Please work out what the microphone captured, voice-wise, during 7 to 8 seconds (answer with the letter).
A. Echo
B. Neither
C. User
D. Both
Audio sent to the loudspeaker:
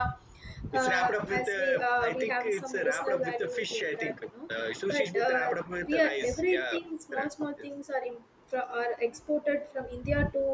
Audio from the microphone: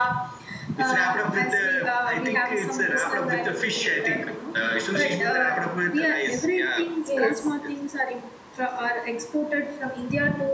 D